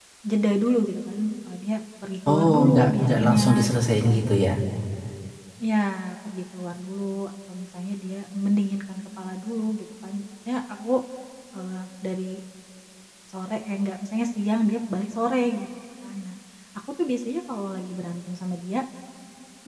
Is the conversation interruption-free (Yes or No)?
No